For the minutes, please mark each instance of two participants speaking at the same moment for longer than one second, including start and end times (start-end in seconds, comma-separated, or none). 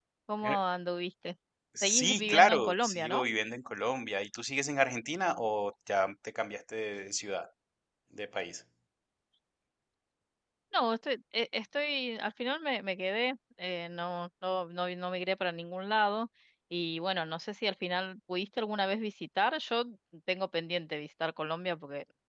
1.8-3.2